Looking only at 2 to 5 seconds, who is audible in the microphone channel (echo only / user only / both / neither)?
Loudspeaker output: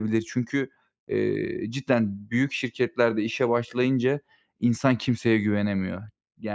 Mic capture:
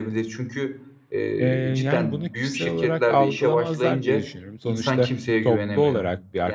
both